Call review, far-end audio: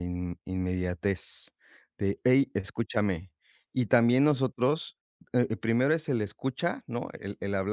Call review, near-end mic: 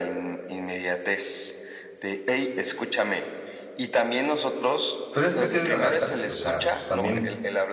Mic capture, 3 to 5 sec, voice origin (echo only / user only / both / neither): echo only